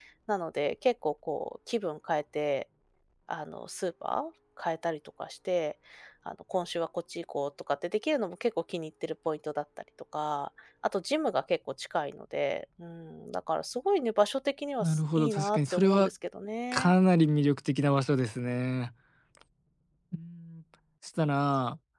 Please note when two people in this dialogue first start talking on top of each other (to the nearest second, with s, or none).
15 s